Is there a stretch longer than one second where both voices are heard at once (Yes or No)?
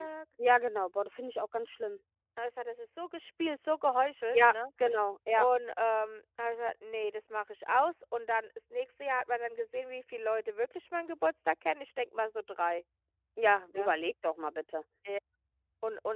No